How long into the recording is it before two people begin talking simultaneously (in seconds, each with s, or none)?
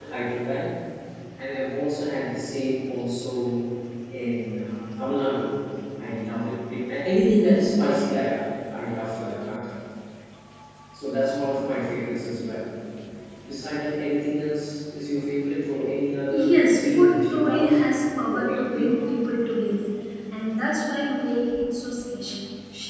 16.3 s